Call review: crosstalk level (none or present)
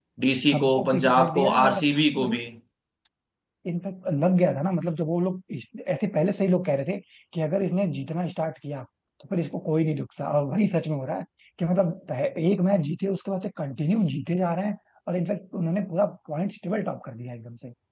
present